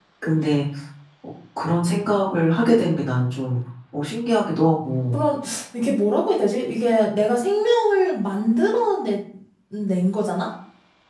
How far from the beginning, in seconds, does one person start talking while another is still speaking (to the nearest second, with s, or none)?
none